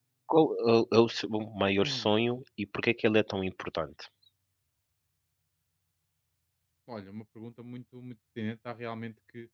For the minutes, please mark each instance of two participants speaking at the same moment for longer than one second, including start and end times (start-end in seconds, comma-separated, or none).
none